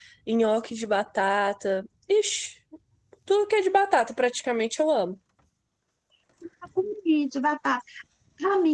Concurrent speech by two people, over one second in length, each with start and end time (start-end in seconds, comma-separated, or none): none